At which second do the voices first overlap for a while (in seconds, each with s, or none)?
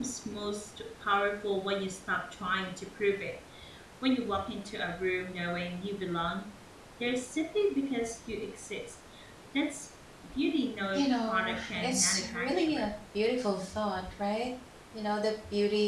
10.9 s